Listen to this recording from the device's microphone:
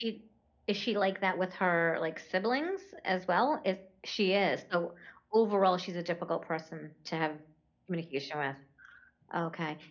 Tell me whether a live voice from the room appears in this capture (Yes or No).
No